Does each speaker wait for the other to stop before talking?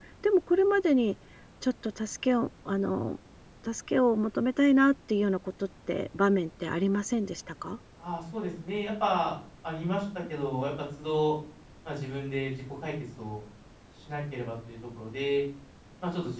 Yes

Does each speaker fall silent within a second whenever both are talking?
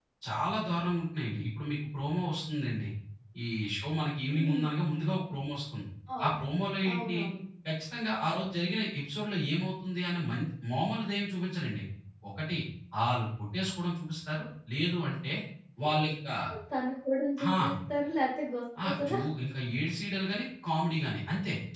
Yes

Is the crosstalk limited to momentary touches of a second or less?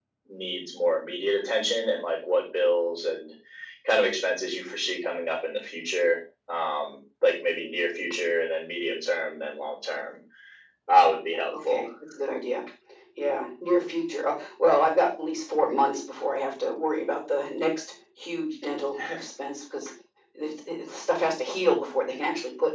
Yes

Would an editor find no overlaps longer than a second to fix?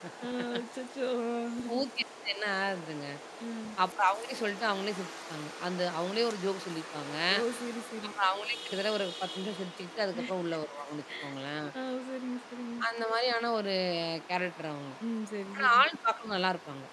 Yes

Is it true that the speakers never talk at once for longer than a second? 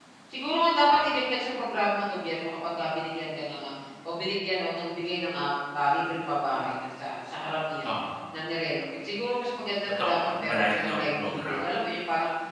No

